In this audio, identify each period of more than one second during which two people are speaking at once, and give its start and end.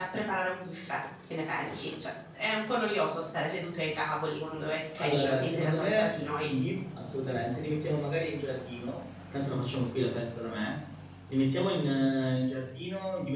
5.0-6.5

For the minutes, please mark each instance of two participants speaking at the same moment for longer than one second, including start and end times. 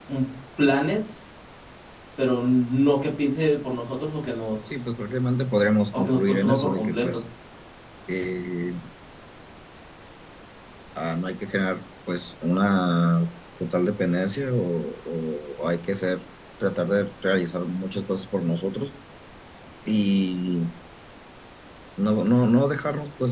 6.0-7.2

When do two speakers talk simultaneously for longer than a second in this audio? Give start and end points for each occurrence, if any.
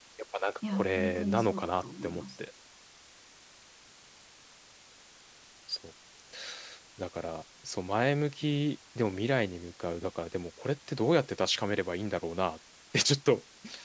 0.7-2.2

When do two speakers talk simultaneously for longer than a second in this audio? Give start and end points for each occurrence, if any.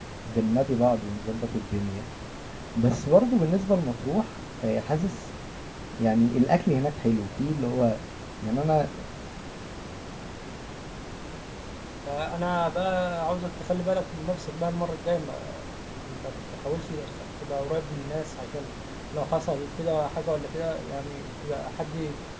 none

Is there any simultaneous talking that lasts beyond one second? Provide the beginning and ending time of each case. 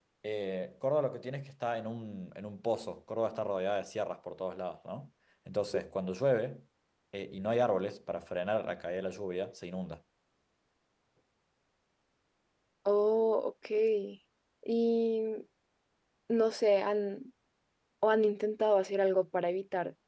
none

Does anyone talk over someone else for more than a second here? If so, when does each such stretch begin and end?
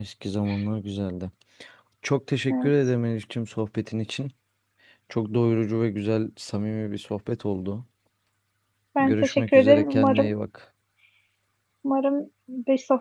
9.0-10.3

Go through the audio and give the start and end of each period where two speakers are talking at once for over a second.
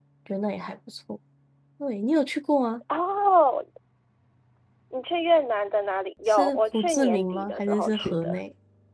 6.3-8.4

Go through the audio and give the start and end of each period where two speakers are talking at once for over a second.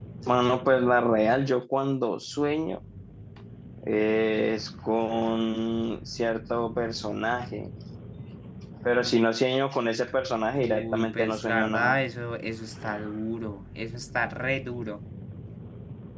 10.6-12.0

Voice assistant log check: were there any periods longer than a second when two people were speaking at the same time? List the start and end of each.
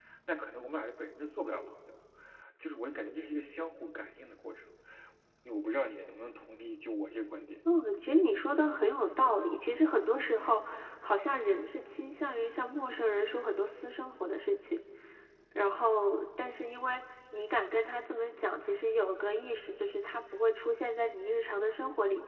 none

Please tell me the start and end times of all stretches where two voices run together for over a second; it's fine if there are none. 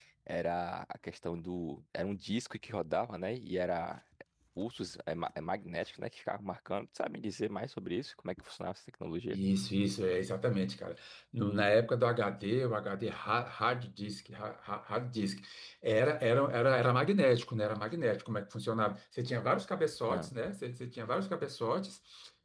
none

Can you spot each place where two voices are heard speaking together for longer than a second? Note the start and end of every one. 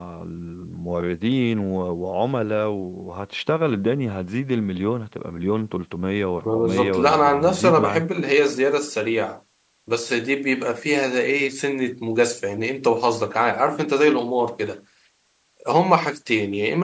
6.5-8.0

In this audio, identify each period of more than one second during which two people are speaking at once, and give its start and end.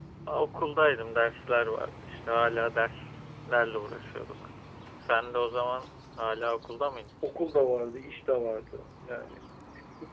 none

